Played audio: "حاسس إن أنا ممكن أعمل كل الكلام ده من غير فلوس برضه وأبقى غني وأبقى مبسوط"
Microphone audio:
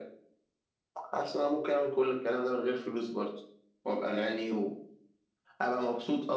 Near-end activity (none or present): none